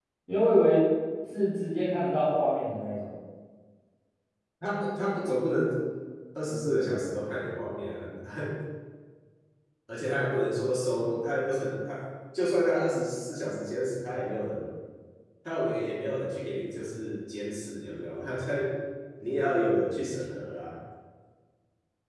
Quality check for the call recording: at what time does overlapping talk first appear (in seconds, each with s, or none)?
none